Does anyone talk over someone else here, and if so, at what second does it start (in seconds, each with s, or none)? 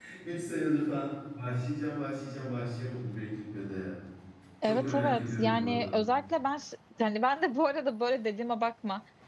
4.6 s